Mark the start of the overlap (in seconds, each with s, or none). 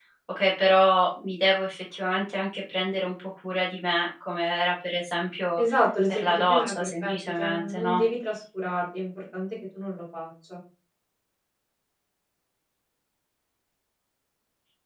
6.1 s